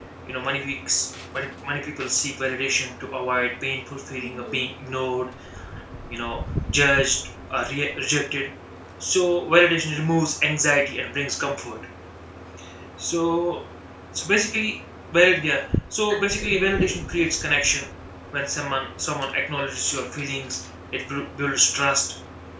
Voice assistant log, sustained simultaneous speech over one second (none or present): present